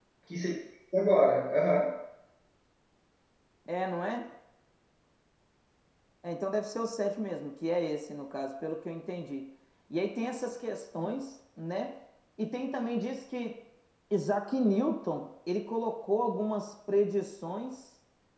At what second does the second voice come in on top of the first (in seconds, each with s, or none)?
none